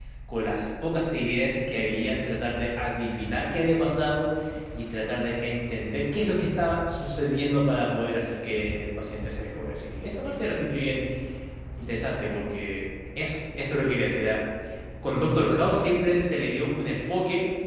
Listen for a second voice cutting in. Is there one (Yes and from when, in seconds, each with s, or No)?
No